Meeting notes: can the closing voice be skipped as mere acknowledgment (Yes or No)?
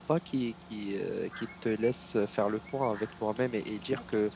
No